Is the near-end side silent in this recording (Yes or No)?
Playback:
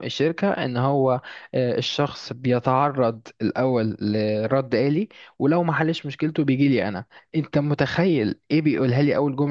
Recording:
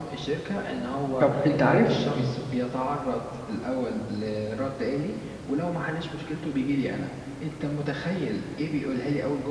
No